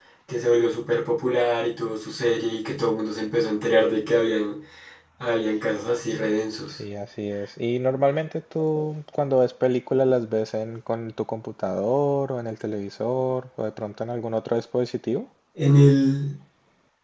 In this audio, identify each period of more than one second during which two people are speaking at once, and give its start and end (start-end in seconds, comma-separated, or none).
none